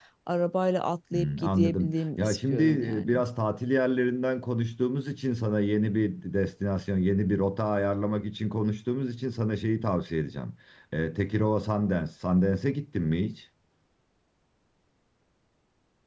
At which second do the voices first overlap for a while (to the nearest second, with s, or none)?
1 s